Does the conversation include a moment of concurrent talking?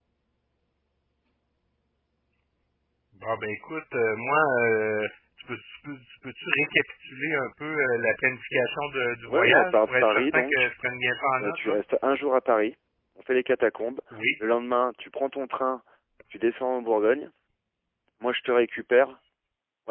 Yes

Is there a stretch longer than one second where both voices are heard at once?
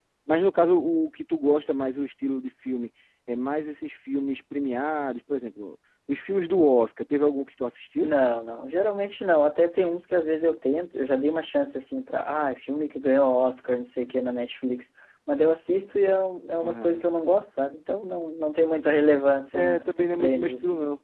Yes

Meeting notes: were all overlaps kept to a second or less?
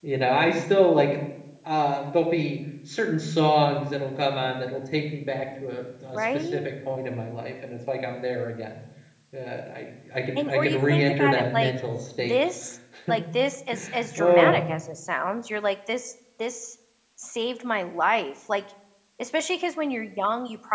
No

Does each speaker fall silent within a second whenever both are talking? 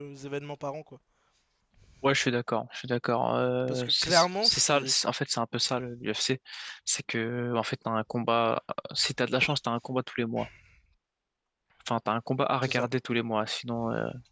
No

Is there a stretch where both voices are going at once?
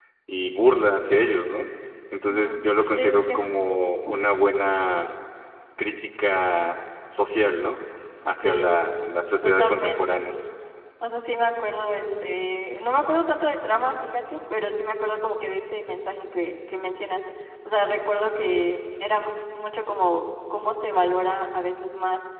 Yes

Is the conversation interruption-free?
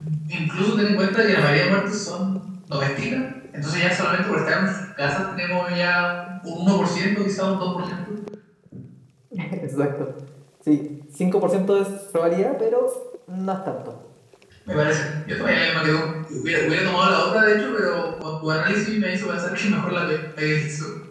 Yes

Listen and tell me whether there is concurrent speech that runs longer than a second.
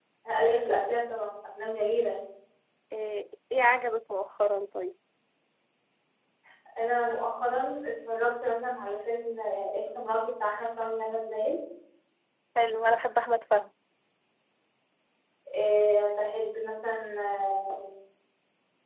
No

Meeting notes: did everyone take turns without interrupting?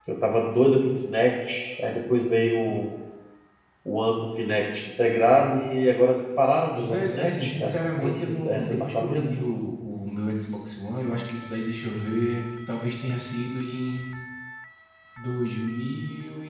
No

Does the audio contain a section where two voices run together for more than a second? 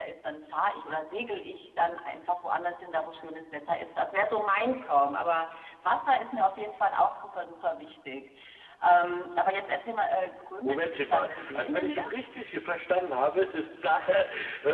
Yes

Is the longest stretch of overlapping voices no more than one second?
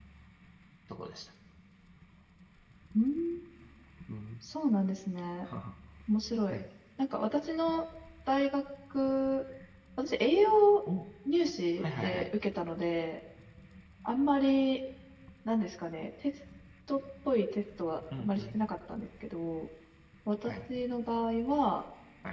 Yes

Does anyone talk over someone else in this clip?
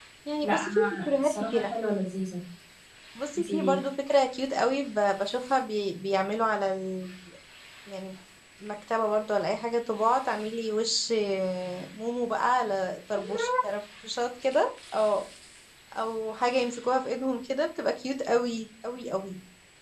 Yes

